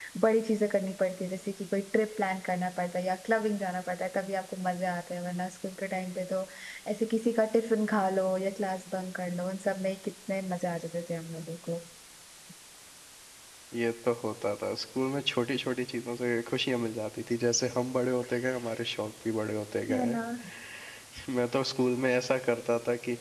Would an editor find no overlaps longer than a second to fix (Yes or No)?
Yes